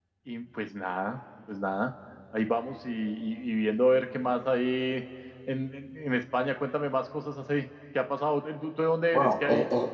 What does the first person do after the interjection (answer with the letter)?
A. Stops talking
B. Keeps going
A